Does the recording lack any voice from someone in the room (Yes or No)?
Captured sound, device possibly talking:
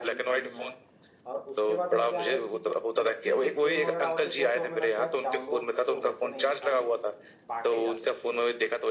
No